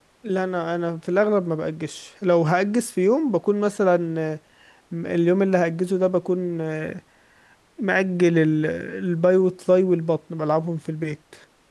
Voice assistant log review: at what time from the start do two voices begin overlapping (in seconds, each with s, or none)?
none